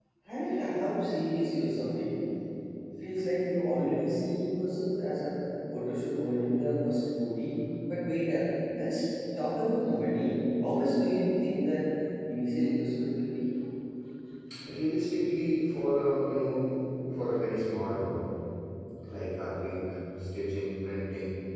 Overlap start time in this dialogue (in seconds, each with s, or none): none